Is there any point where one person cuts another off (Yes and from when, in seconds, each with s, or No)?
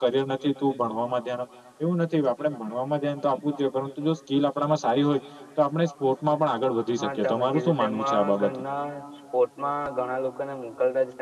Yes, from 7.0 s